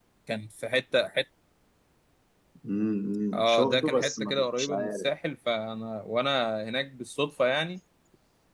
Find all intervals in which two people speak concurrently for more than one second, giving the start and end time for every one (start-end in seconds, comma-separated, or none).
3.3-5.1